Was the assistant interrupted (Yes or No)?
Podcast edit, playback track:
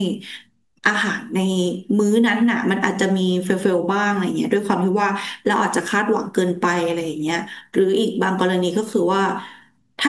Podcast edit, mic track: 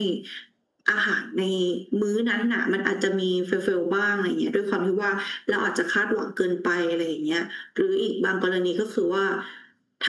No